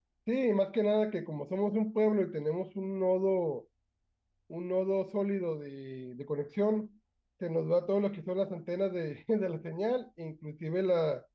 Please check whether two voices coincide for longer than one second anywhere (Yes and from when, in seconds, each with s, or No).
No